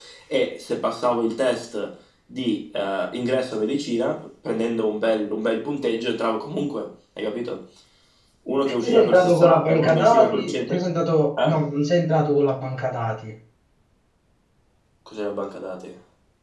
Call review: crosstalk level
present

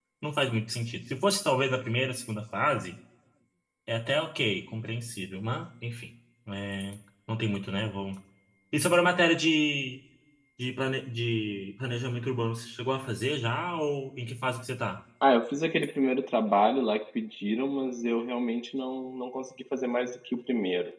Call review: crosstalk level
none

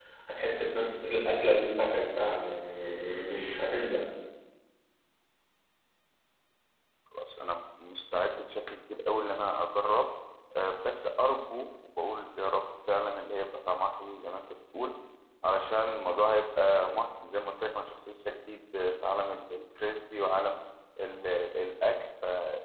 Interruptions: none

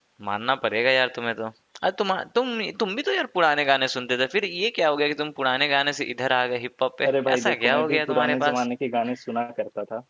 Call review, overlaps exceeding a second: present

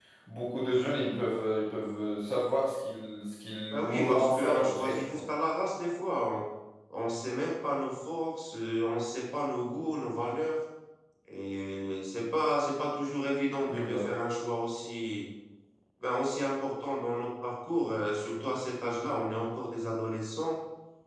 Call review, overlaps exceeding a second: present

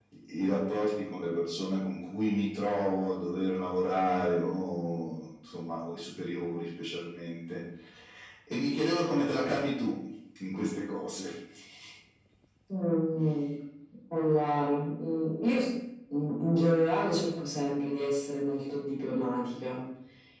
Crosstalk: none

